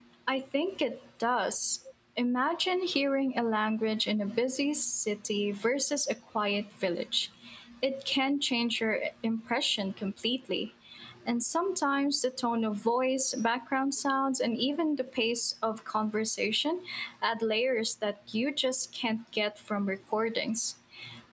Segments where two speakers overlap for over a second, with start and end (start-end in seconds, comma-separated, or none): none